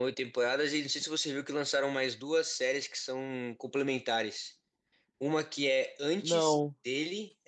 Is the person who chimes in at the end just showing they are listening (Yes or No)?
Yes